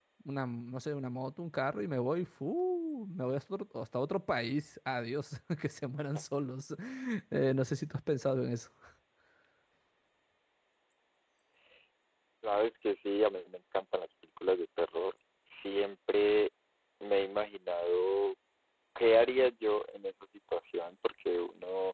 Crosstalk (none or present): none